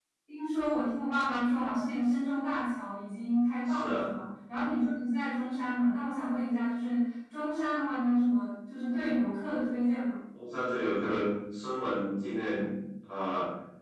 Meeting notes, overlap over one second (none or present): none